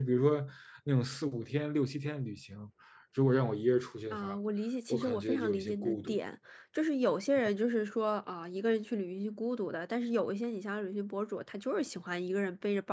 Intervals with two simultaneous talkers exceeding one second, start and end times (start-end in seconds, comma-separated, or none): 4.9-6.2